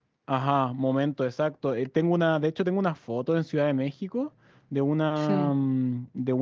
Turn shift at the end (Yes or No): No